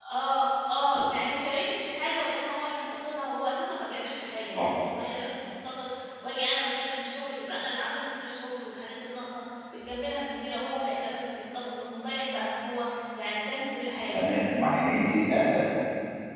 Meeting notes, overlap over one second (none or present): none